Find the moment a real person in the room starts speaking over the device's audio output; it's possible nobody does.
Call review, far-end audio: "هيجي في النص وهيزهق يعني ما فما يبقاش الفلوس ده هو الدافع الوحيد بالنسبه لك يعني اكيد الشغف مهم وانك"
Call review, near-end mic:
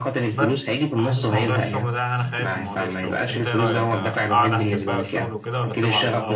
0.3 s

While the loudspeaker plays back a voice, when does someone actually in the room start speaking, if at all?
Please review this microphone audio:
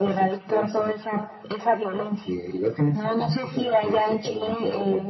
none

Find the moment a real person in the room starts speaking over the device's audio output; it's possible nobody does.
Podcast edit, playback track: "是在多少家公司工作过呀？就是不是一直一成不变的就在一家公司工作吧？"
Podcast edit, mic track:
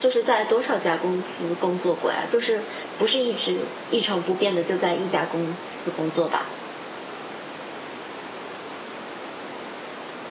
none

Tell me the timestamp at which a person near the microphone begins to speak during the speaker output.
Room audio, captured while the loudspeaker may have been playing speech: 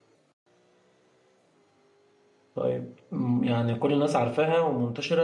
2.5 s

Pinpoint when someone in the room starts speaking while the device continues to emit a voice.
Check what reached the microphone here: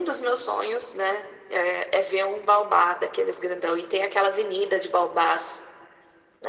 none

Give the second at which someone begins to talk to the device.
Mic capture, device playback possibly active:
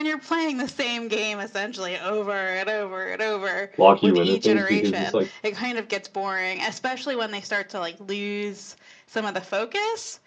3.8 s

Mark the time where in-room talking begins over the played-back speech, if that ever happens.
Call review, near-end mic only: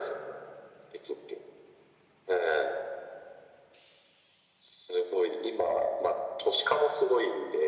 none

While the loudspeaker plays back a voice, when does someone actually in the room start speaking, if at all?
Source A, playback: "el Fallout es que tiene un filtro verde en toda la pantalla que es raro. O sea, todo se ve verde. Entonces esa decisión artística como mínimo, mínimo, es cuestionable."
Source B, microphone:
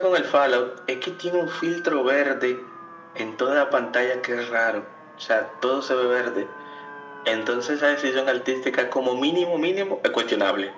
none

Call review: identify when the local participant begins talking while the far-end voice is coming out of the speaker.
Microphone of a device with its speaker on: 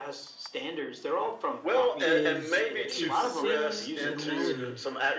2.0 s

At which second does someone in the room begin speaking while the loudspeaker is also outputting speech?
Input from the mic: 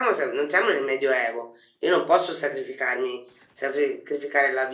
none

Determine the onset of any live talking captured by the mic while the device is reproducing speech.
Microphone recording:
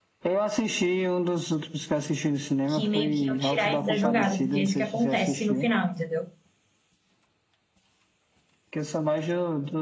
2.7 s

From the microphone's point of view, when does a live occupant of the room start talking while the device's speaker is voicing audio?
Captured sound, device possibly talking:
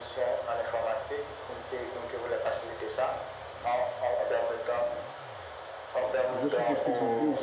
6.2 s

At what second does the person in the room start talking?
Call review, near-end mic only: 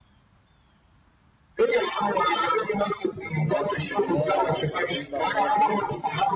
3.4 s

